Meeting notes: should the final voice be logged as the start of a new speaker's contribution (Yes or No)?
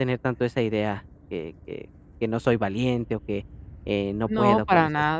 Yes